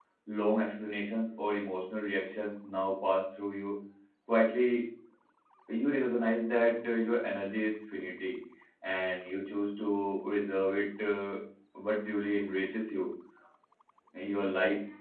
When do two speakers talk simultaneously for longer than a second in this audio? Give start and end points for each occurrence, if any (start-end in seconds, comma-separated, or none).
none